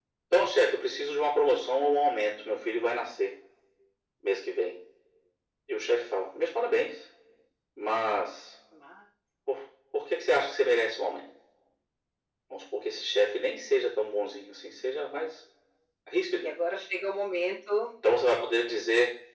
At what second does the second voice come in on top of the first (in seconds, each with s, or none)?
none